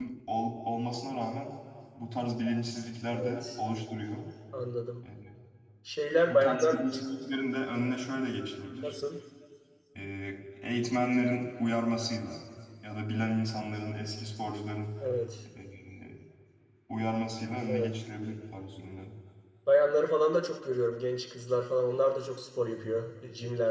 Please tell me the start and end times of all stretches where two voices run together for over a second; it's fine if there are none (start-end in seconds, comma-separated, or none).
none